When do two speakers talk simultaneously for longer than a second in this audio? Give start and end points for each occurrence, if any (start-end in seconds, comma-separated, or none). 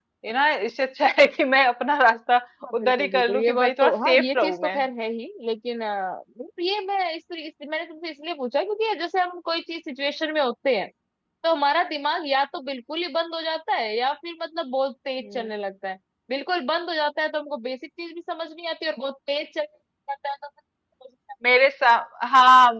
2.7-4.8